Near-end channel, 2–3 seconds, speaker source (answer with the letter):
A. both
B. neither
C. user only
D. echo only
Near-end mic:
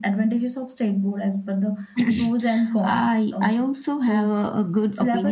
D